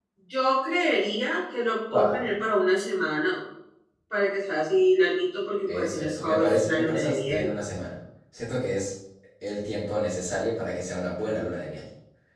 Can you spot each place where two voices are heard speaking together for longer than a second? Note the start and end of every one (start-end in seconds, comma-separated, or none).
5.7-7.5